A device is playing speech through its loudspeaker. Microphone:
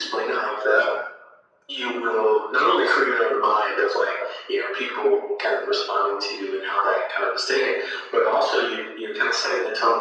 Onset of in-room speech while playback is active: none

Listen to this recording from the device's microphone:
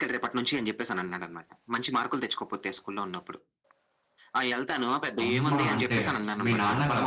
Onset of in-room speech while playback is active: 5.2 s

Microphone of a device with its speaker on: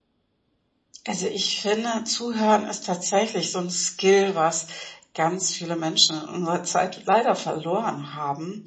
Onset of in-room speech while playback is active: none

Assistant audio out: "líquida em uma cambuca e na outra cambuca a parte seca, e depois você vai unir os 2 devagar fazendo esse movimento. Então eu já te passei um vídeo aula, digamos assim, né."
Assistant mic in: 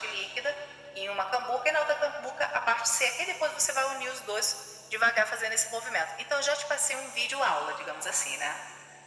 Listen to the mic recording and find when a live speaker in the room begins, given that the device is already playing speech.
none

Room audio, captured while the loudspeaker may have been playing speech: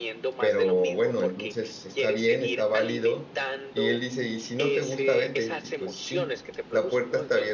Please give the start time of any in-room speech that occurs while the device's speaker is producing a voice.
0.4 s

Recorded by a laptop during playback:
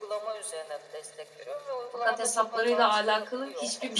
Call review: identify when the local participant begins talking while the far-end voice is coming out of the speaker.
1.9 s

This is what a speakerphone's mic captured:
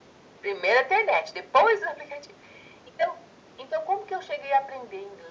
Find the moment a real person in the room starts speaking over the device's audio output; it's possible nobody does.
none

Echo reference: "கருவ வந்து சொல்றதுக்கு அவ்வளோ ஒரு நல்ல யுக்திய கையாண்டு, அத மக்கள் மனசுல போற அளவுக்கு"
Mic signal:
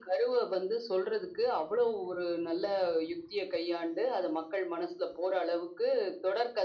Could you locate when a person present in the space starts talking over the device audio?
none

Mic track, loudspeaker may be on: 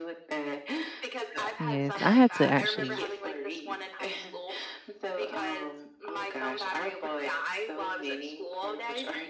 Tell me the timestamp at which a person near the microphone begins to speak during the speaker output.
1.6 s

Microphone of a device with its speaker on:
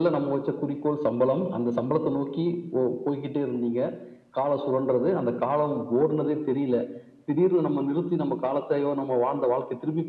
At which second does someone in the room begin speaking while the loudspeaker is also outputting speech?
none

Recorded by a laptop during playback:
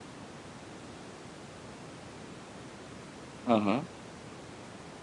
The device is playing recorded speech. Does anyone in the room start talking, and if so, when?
3.5 s

